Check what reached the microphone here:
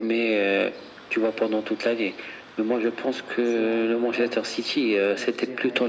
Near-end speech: present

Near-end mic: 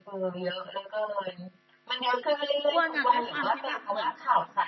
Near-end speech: present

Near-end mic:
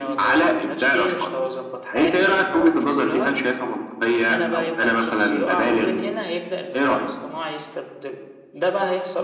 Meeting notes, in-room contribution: none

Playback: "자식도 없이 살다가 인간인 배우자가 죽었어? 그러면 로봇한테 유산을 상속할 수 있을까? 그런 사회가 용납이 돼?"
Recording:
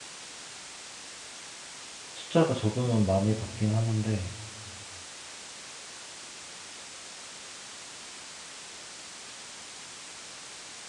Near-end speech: present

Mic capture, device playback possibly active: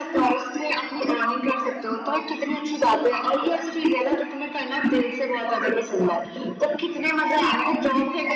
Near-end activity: none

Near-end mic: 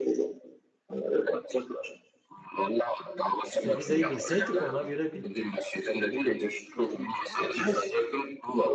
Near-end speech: present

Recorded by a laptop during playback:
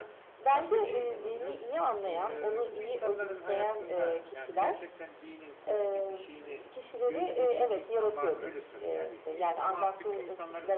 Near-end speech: present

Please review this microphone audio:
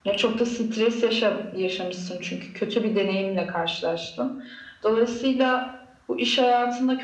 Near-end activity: none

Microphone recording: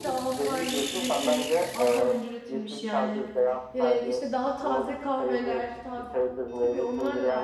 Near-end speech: present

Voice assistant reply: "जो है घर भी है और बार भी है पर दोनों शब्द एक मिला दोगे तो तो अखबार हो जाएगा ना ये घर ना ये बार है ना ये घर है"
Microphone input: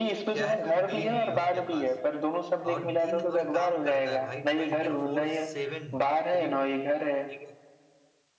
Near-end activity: present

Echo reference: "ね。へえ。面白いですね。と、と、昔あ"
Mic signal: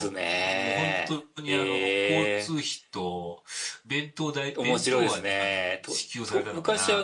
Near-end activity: present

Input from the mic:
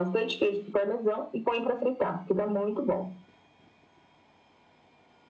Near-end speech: none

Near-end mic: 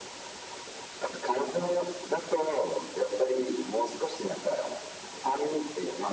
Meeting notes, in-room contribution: none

